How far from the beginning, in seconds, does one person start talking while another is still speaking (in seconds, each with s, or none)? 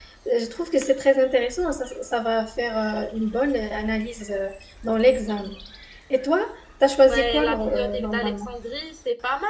7.1 s